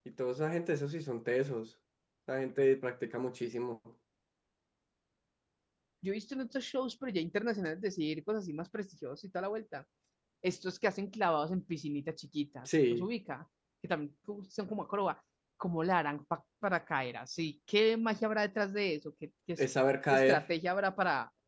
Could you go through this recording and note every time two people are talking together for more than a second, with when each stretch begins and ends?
none

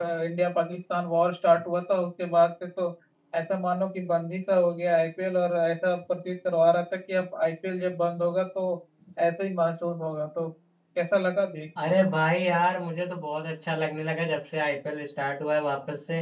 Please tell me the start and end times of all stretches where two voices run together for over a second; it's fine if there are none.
none

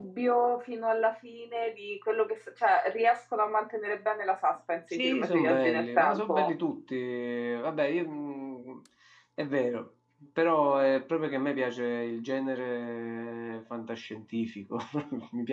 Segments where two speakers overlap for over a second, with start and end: 4.9-6.5

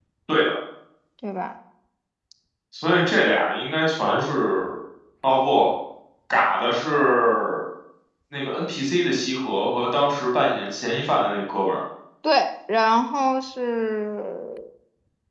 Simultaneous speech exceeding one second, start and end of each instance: none

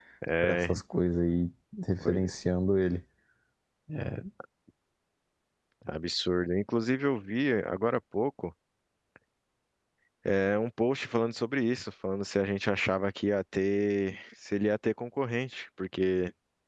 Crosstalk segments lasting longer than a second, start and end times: none

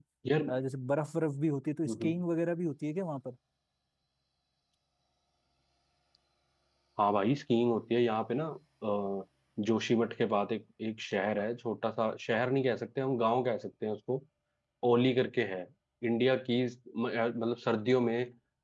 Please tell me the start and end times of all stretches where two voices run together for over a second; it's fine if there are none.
none

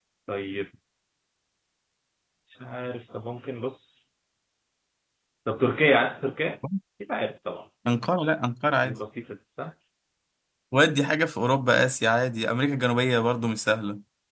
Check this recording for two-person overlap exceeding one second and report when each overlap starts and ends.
none

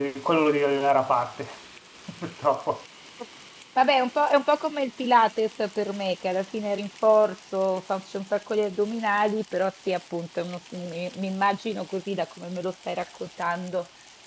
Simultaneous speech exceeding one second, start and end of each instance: none

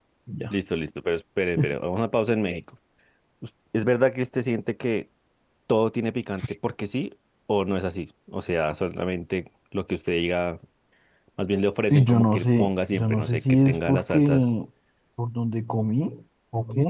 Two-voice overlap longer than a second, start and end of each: 11.9-14.4

